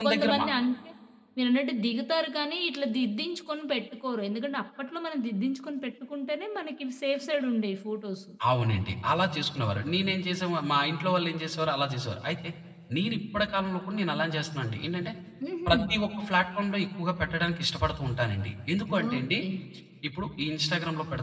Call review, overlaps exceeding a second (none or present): none